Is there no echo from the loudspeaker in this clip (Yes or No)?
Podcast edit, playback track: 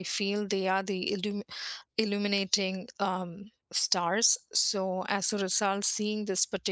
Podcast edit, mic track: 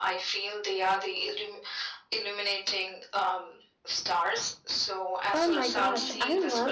No